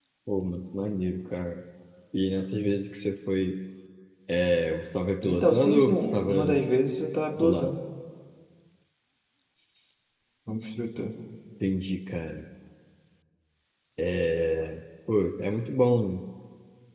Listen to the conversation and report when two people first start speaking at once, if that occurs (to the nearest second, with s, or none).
5 s